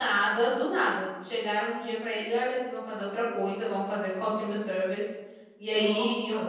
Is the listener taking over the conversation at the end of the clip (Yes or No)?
No